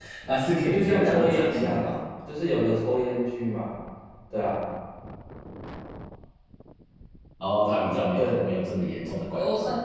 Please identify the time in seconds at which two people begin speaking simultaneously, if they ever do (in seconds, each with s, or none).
0.7 s